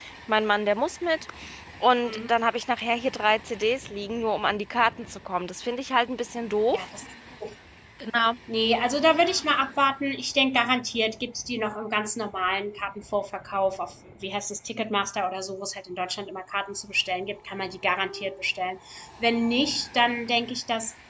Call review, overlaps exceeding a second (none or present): none